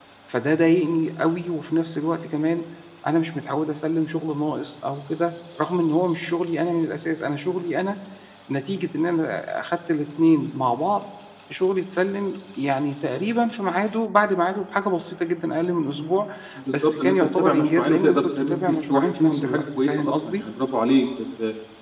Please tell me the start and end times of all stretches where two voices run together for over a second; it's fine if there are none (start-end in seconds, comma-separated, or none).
16.7-20.4